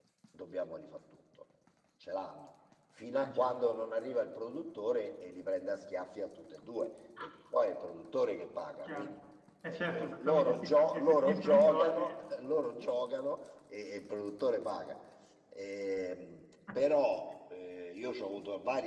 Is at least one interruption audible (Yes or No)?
Yes